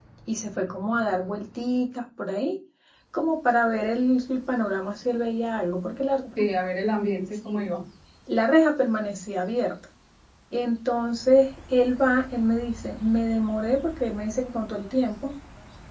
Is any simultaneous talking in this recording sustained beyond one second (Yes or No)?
No